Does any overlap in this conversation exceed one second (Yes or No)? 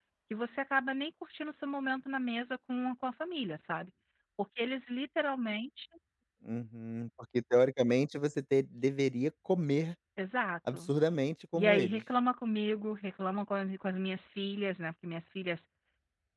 No